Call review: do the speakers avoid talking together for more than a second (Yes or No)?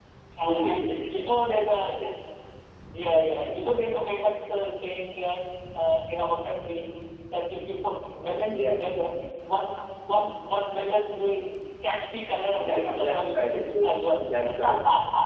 No